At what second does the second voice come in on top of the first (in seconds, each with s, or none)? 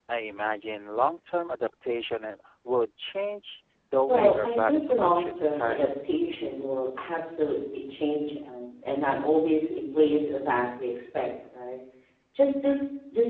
4.1 s